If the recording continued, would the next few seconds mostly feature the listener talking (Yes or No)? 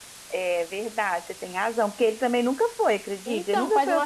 Yes